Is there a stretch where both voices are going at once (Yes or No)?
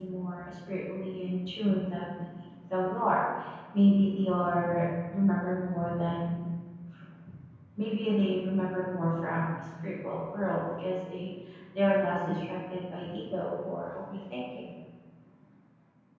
No